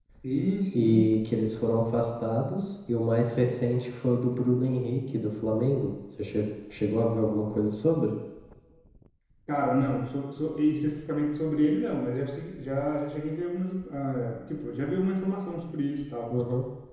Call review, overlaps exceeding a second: none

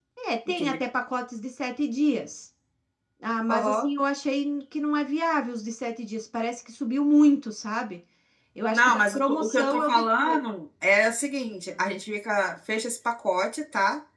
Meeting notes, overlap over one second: present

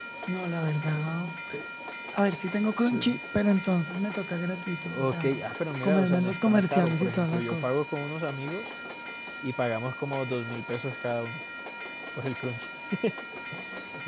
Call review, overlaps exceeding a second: present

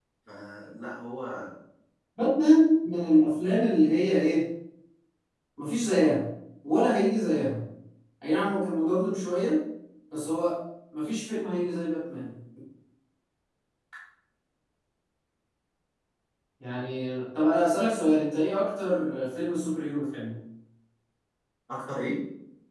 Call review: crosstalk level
none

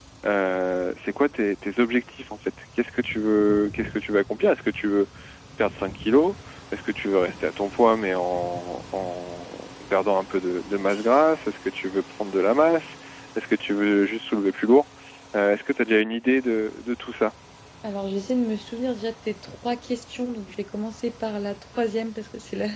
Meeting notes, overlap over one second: none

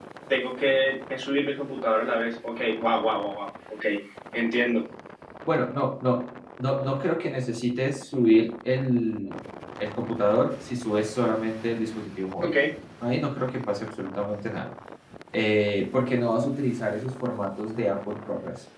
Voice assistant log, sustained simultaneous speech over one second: none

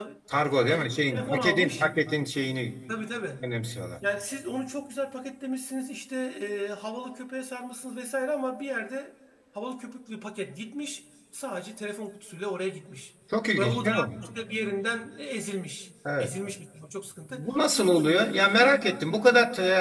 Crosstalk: present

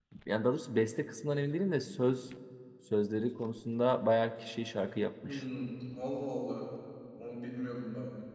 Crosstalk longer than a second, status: none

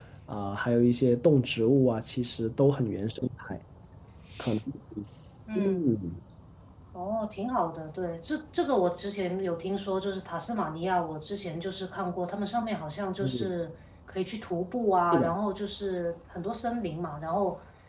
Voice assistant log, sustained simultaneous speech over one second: none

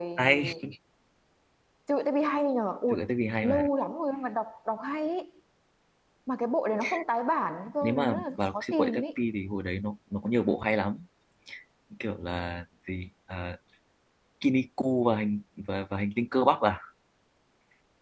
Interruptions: present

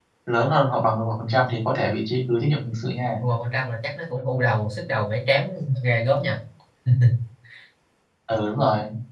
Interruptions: none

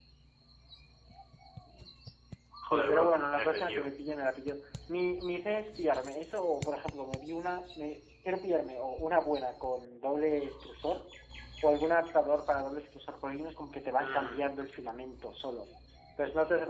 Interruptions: present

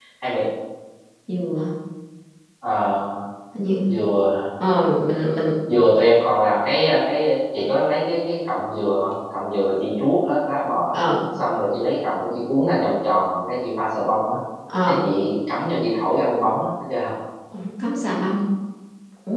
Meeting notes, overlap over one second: none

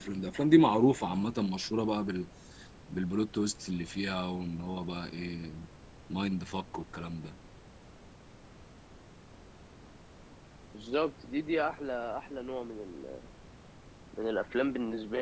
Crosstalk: none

